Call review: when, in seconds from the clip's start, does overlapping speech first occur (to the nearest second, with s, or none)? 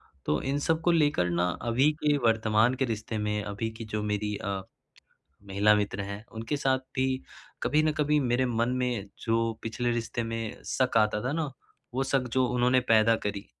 none